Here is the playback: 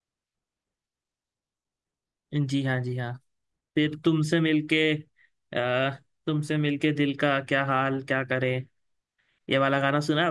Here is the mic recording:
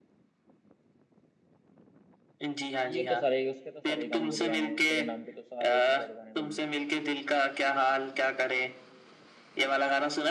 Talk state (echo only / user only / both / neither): both